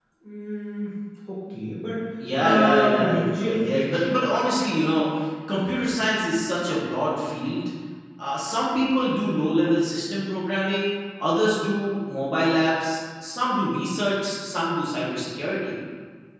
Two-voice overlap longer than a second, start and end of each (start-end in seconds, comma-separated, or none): 2.4-4.1